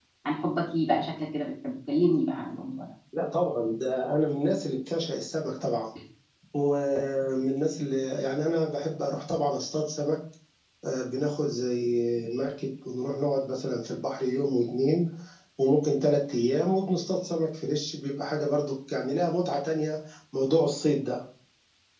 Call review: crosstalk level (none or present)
none